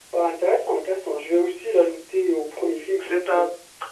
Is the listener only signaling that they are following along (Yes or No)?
No